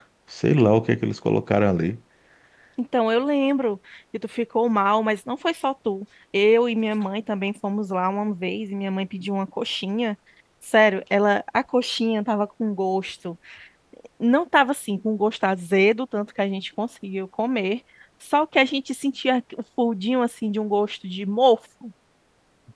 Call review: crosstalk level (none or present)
none